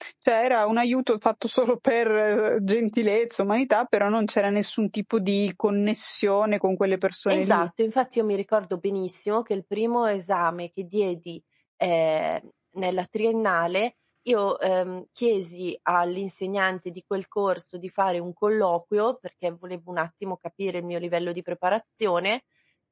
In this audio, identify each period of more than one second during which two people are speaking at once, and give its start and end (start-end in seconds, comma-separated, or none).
none